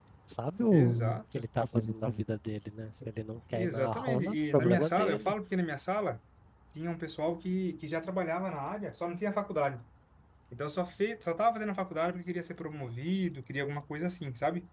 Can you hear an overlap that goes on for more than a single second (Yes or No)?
Yes